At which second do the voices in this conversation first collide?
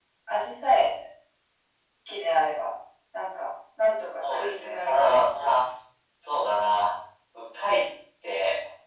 4 s

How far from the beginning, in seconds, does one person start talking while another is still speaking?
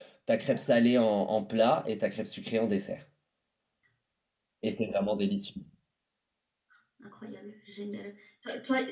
none

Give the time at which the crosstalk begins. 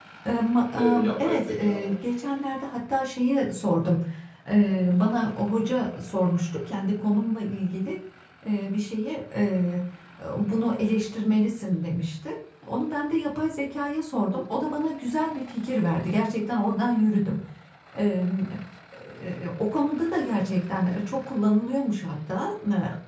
1 s

